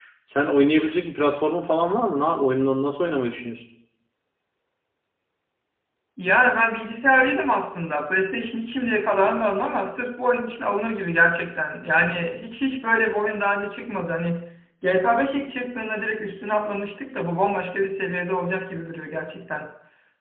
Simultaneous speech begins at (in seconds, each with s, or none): none